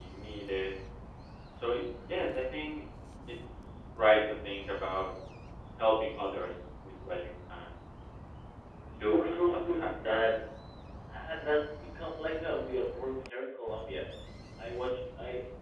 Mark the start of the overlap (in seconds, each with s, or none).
9.0 s